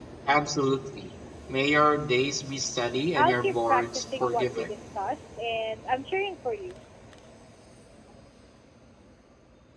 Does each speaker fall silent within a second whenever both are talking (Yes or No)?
No